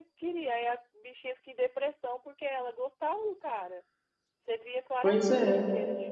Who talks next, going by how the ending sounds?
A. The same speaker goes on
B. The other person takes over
A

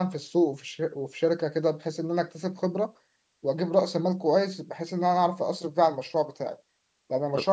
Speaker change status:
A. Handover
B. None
B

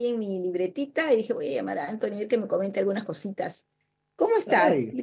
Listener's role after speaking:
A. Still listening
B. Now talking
B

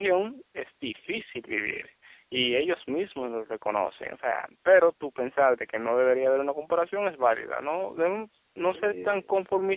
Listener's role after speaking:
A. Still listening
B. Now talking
A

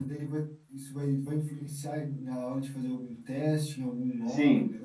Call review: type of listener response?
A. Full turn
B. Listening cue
A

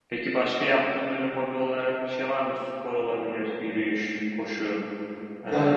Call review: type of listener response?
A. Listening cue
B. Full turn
B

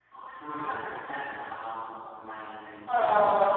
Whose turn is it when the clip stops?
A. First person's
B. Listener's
B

